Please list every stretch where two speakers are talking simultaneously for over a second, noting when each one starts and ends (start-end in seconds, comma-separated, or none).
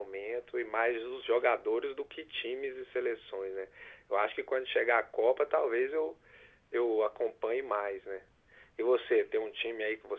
none